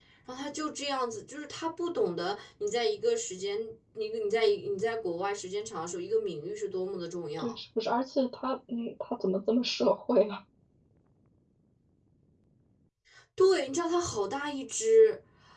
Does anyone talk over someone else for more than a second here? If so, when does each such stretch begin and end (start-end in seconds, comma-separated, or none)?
none